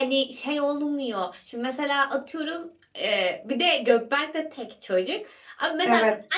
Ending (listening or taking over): listening